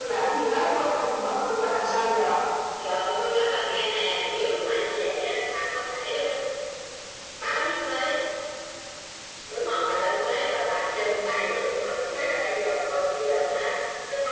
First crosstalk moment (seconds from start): none

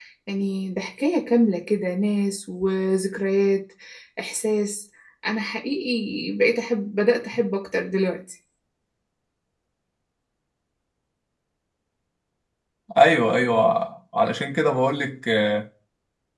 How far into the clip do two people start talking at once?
none

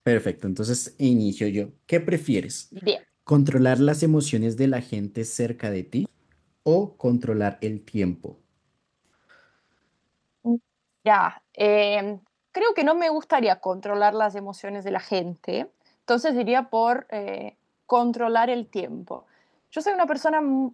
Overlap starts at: none

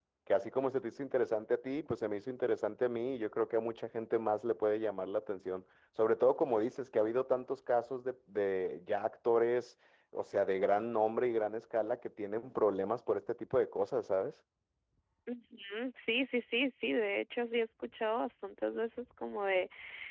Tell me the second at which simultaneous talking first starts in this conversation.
none

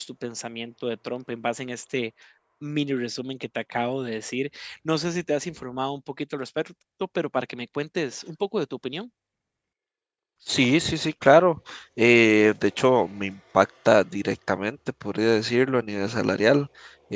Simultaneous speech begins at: none

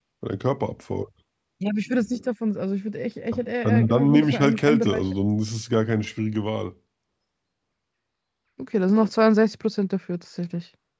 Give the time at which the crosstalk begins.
3.6 s

